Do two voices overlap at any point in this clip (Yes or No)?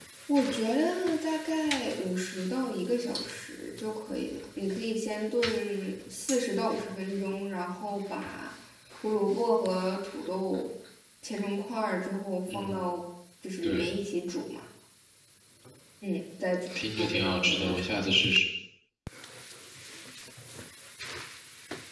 Yes